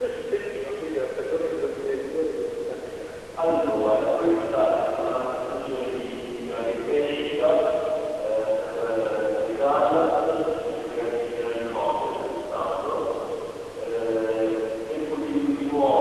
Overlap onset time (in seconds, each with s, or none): none